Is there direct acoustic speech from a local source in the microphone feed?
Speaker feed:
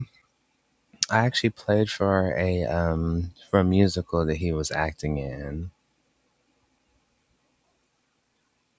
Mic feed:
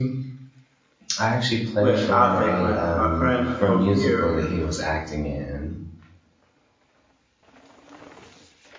Yes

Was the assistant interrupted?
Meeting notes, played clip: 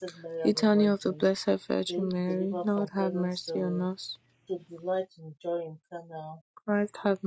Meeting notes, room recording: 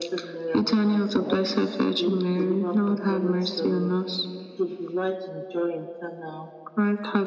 Yes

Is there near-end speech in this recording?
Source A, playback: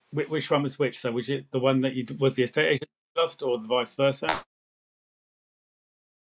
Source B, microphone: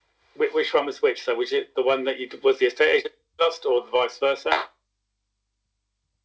No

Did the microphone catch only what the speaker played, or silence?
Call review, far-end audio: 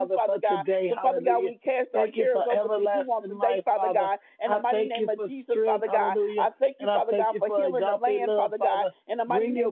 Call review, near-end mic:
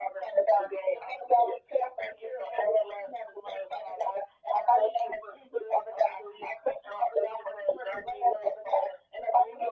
Yes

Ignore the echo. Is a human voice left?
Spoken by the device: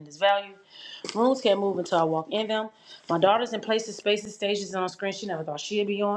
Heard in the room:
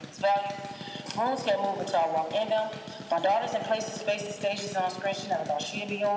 No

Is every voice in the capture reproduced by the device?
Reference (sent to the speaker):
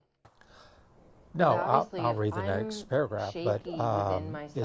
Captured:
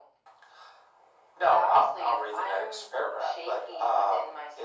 Yes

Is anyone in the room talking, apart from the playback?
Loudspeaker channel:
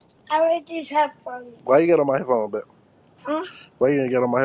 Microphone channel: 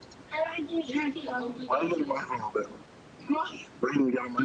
Yes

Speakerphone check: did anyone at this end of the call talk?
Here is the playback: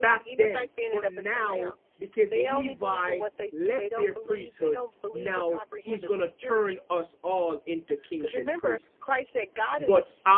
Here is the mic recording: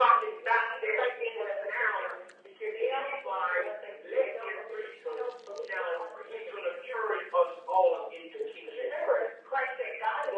No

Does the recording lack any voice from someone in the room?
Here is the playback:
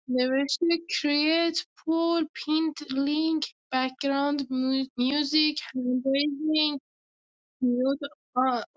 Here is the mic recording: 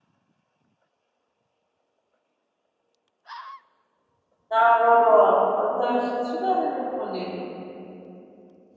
No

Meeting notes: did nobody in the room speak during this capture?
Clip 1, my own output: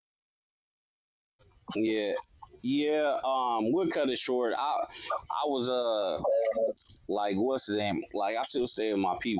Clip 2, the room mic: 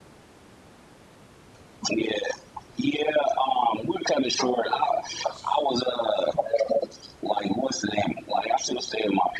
No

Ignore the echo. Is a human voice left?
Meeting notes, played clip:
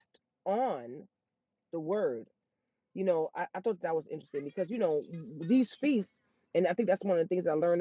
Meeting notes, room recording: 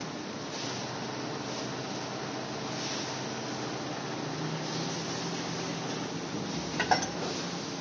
No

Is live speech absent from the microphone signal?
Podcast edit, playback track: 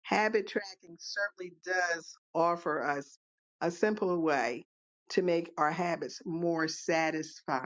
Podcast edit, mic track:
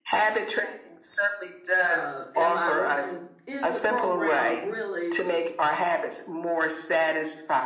No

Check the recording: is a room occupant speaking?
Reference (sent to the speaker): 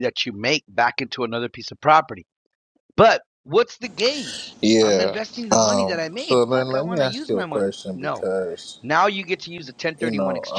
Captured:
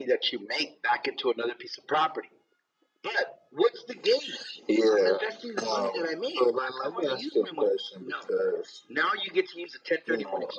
No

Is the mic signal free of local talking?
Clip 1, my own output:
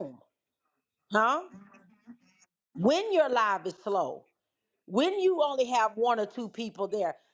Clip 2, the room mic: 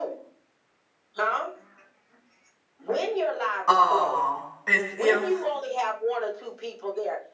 No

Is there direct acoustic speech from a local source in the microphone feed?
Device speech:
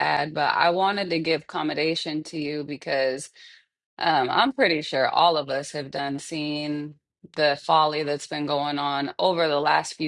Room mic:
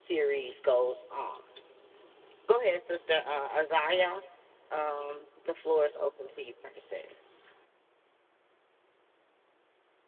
Yes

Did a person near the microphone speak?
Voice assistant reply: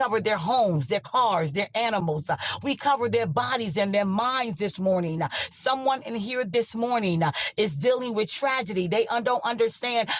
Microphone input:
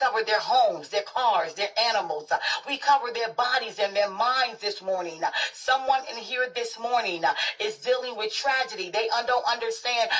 No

